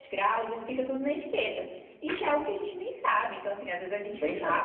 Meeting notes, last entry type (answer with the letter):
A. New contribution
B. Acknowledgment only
B